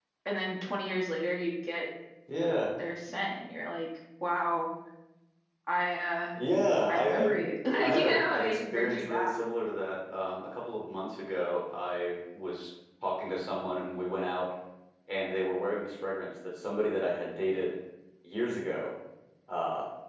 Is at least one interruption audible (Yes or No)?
Yes